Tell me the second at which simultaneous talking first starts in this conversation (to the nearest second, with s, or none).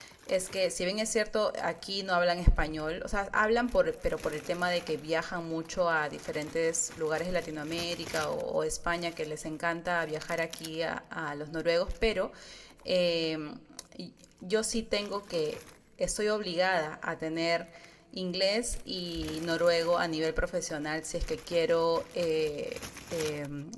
none